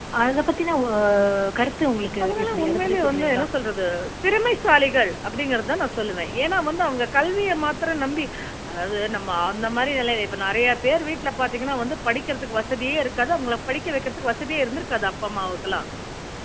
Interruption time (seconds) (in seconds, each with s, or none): 2.2 s